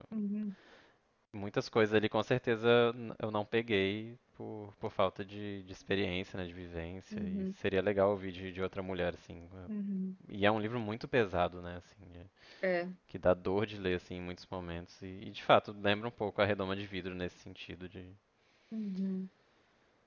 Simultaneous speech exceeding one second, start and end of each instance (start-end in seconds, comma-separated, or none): none